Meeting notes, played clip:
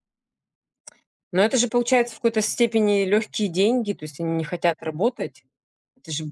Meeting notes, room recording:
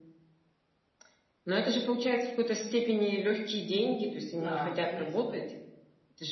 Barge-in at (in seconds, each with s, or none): 4.3 s